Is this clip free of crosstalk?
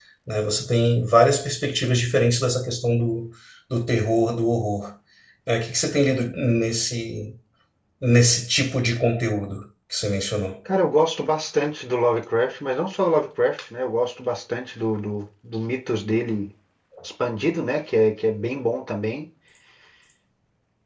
Yes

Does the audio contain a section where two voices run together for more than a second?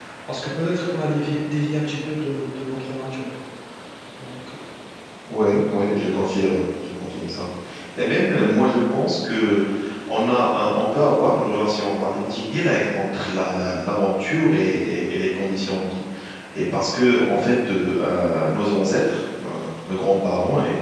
No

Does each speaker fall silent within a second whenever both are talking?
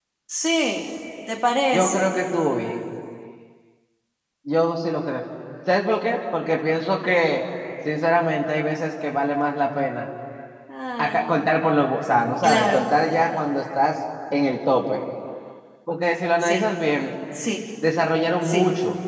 Yes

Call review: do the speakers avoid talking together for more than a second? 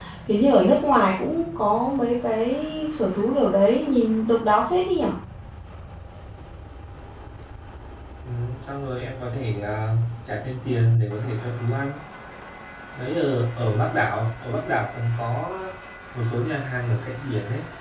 Yes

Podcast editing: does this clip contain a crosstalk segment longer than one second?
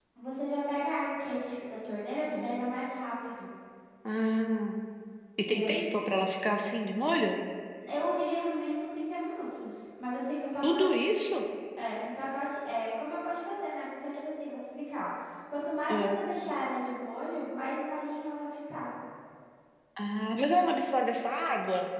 No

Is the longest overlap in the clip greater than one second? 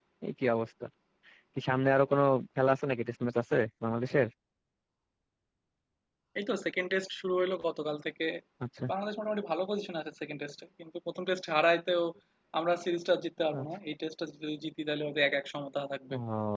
No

